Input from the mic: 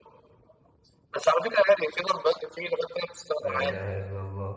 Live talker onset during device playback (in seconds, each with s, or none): 3.4 s